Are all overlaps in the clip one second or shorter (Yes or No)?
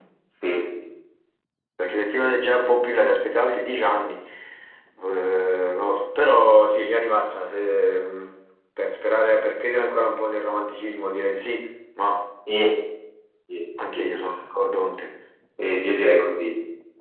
Yes